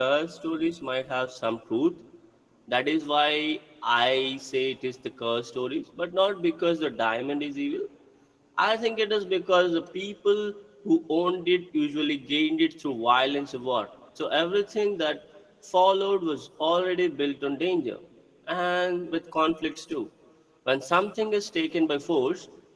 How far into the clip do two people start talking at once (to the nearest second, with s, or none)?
none